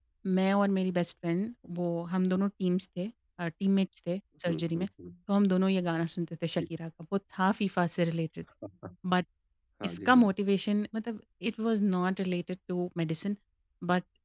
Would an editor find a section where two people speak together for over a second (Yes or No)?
No